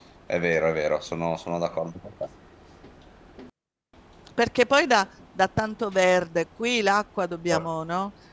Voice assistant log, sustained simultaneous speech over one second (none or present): none